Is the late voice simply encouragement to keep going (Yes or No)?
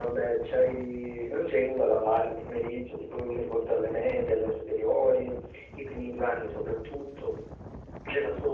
Yes